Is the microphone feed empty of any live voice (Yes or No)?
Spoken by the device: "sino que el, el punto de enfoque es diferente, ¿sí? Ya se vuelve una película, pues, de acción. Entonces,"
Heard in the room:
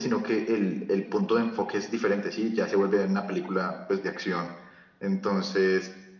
Yes